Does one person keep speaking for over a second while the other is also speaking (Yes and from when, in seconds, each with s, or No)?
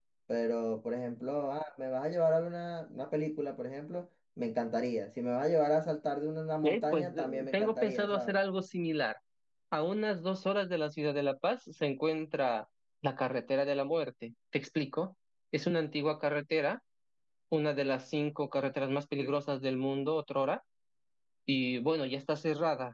Yes, from 6.9 s